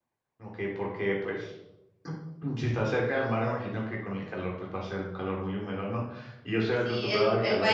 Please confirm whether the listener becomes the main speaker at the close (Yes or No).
Yes